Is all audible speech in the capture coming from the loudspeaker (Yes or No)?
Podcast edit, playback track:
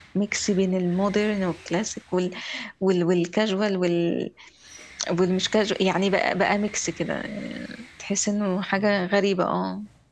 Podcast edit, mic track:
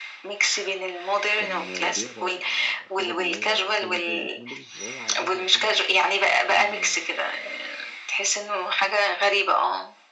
No